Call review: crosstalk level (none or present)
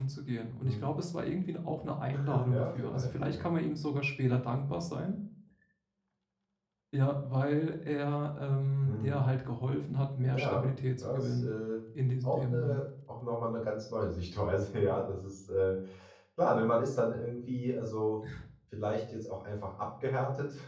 present